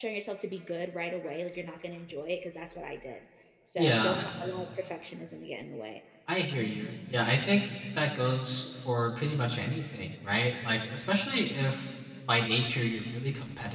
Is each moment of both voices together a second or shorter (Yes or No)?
Yes